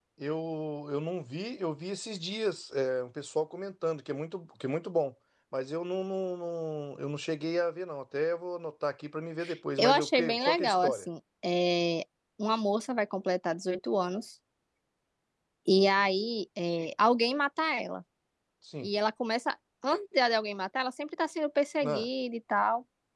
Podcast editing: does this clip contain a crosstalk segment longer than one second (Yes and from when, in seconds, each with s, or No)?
Yes, from 9.8 s